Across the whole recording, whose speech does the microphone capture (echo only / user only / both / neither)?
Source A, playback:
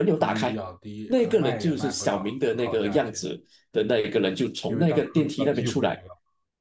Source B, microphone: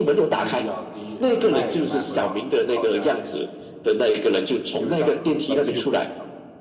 echo only